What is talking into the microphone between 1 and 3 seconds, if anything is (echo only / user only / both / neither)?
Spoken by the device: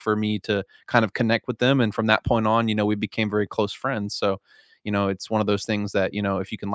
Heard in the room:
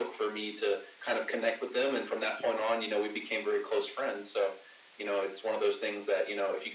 echo only